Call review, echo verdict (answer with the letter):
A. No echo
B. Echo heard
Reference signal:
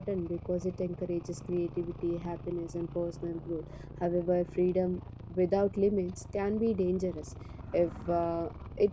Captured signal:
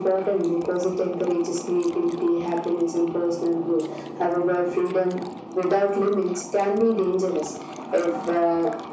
B